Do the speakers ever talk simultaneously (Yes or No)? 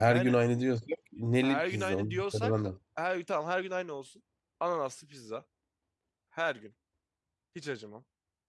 Yes